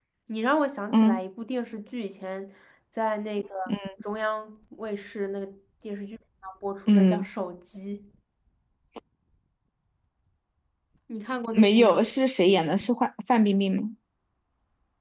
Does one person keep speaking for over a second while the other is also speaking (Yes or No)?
No